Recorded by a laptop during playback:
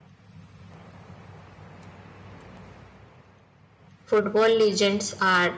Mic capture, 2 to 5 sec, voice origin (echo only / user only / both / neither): user only